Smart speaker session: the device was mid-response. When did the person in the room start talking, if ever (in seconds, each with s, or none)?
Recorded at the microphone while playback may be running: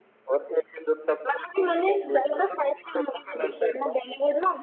none